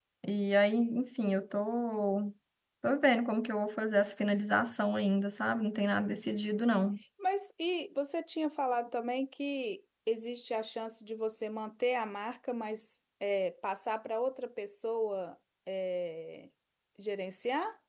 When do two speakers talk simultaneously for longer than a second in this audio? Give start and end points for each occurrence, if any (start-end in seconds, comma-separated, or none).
none